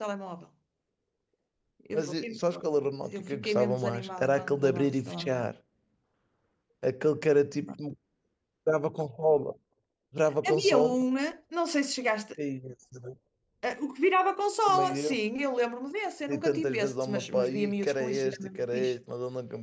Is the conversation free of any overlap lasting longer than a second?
No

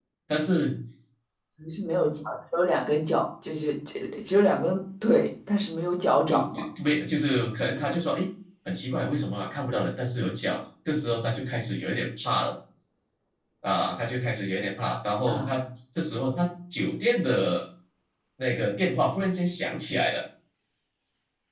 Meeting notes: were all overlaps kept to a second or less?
Yes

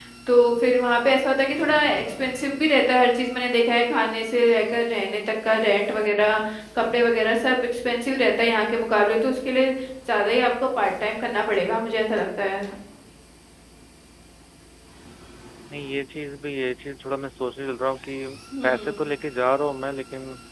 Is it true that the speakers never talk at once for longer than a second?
Yes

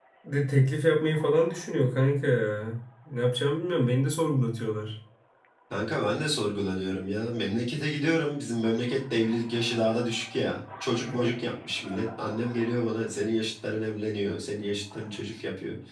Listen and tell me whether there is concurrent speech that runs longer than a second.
No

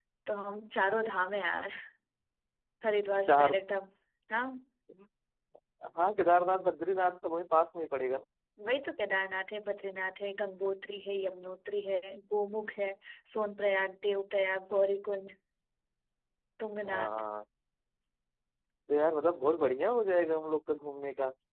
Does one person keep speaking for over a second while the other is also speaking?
No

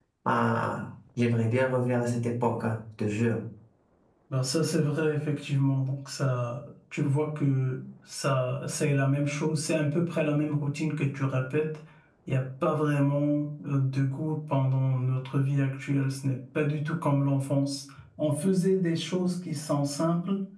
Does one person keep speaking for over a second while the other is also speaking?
No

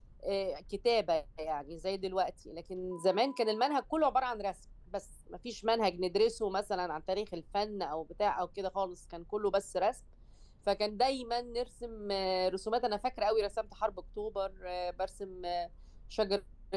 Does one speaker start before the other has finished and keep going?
No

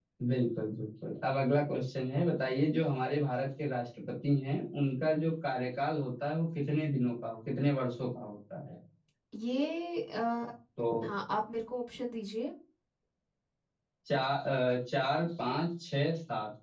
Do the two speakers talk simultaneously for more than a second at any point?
No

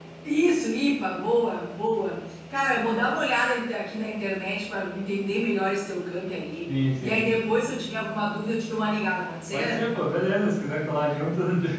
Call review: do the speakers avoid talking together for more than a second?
Yes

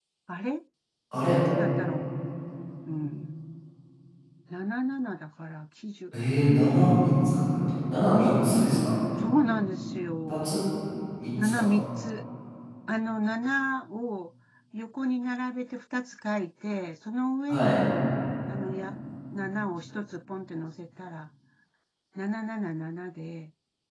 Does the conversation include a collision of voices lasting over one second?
No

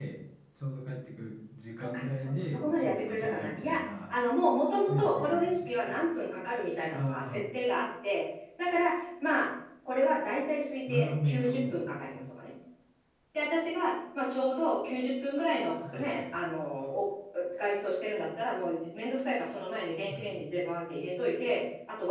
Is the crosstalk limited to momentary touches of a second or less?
No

